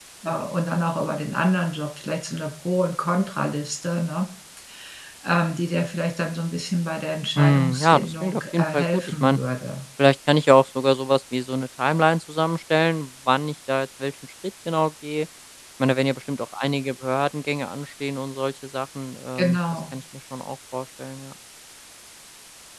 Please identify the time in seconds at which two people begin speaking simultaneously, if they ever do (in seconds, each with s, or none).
7.4 s